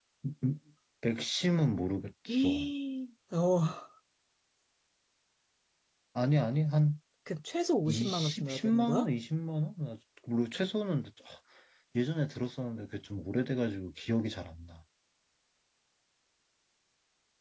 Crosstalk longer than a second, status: present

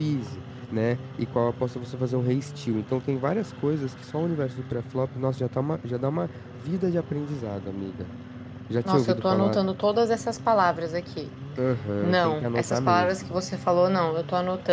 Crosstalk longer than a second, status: present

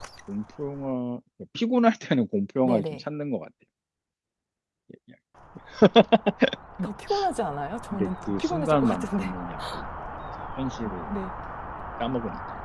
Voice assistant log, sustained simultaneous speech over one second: present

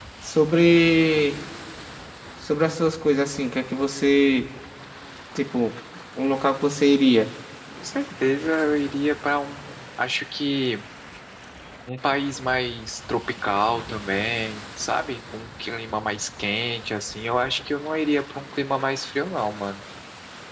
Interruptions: none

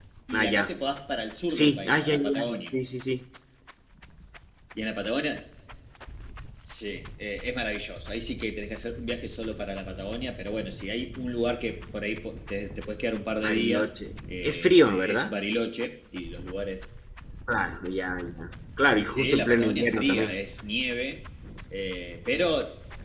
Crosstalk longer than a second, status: present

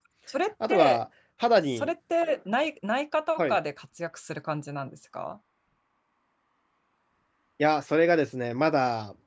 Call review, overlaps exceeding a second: none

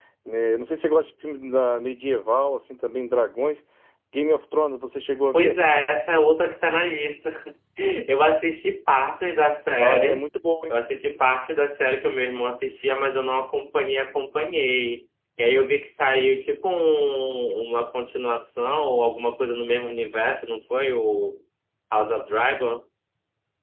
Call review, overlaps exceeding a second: none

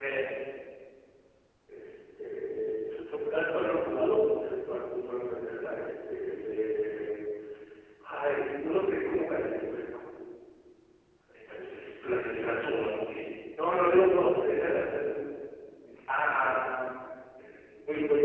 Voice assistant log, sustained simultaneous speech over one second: present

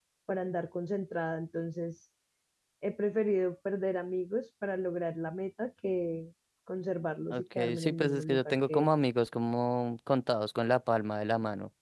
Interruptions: present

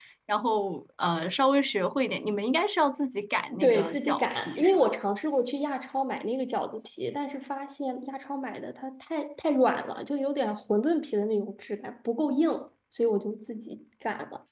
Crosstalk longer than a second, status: present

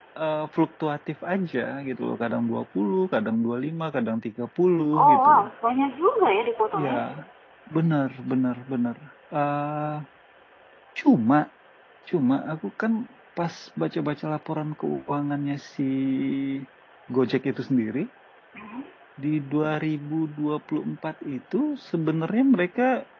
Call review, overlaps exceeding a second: none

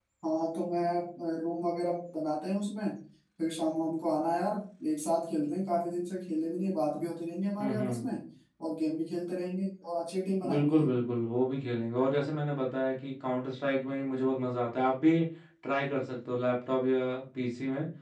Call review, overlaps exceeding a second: none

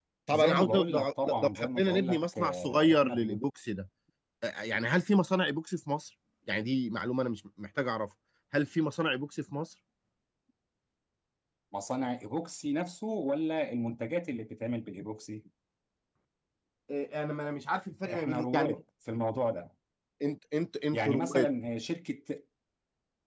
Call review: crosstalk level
present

